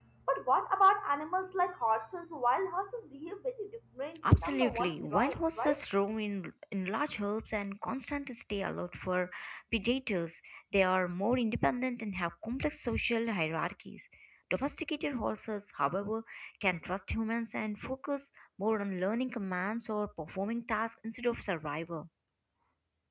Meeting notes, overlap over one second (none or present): present